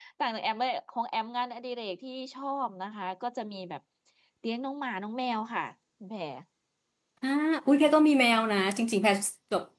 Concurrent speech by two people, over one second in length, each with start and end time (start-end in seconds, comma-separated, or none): none